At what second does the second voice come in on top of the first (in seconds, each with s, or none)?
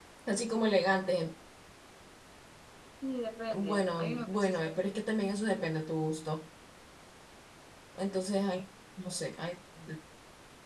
3.5 s